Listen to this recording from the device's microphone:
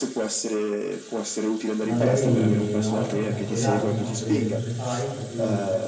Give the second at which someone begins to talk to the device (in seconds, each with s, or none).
1.8 s